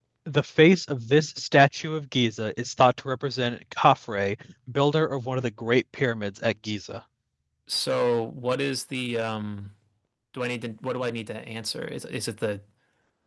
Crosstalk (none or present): none